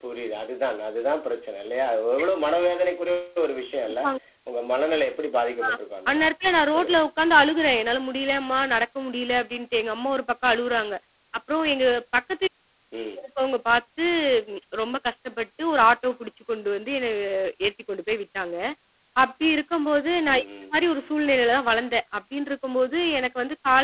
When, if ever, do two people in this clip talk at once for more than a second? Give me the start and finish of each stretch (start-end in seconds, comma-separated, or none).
none